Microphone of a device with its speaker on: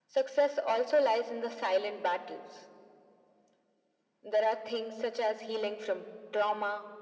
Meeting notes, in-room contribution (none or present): none